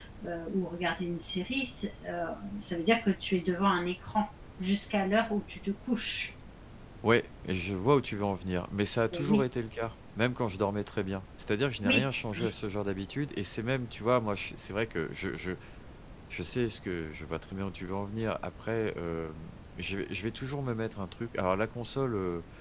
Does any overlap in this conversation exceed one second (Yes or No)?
No